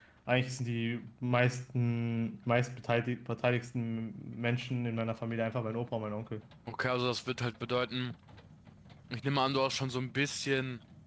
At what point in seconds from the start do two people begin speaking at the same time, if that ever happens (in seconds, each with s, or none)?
none